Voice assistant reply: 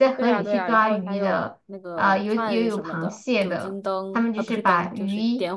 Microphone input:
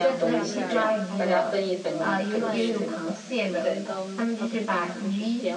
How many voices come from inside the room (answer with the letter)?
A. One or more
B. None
A